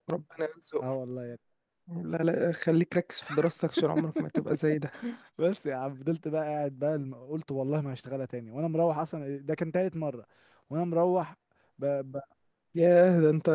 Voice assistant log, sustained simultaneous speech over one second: none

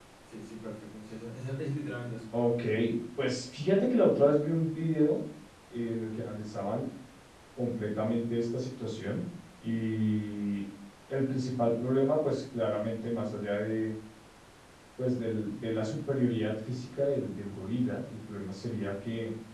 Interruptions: none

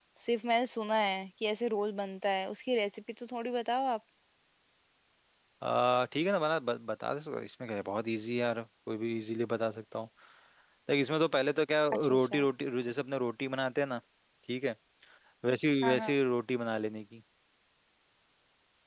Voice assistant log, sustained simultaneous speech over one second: none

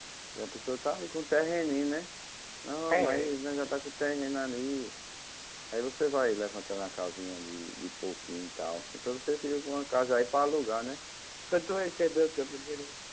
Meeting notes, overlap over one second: none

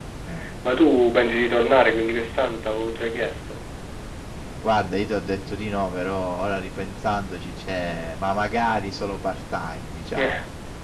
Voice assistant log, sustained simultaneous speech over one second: none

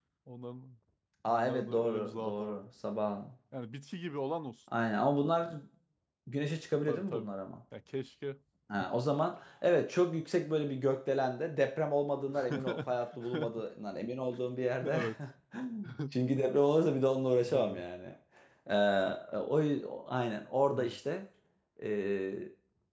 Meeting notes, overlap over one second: present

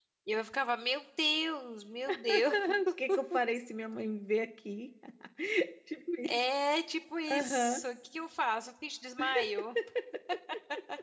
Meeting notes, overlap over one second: none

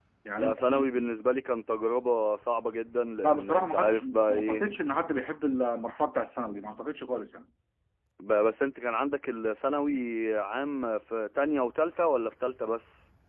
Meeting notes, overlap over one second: present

